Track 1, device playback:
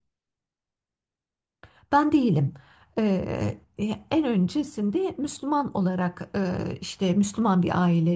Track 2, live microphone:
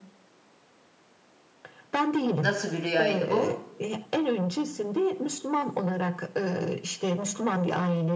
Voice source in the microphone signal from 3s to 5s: both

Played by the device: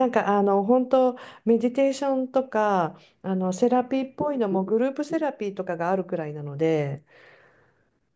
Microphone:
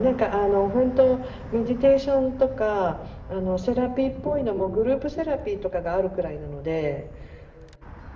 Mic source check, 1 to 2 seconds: echo only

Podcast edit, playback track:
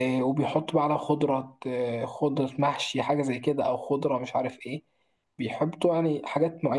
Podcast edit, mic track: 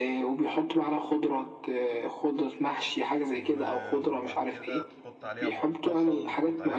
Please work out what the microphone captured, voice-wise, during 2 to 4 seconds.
both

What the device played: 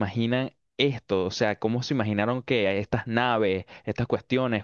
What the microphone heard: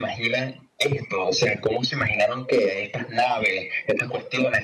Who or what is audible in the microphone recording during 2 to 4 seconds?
echo only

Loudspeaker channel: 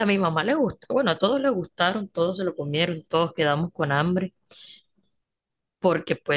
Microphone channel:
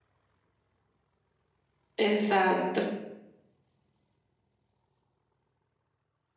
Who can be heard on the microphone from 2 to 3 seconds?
user only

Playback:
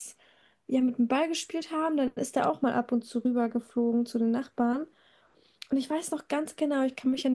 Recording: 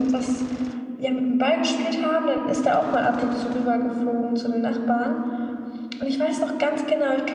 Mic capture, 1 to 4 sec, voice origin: echo only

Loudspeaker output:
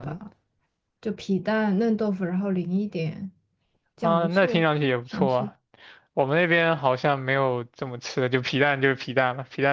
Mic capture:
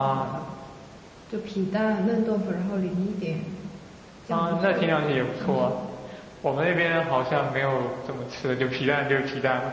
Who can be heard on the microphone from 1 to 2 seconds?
echo only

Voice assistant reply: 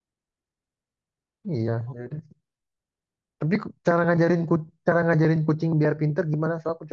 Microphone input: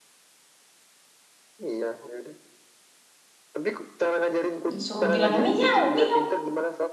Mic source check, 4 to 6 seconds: both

